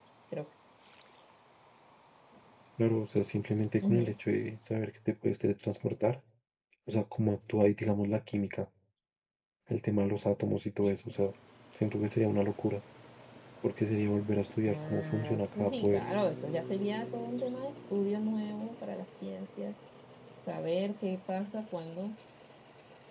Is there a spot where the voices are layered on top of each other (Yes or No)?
Yes